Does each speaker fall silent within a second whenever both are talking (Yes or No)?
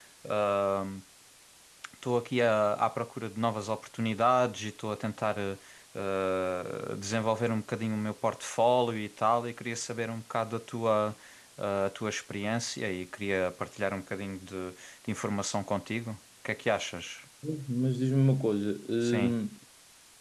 Yes